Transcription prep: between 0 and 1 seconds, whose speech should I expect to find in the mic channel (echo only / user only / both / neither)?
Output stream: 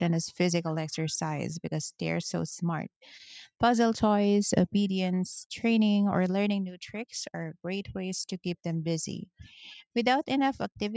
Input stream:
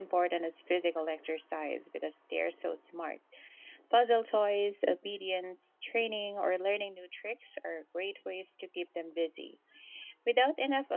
echo only